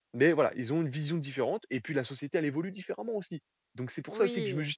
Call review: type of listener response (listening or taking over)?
listening